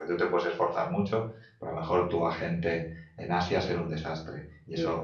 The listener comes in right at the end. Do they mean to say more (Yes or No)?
No